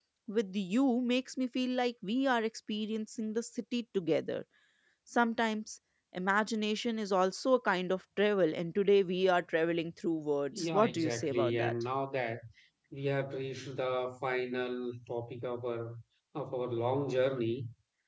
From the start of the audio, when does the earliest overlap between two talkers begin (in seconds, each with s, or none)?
10.5 s